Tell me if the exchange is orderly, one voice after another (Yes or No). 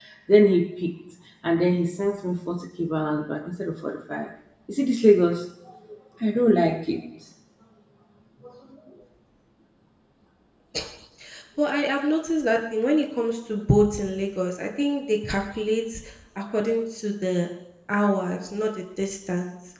Yes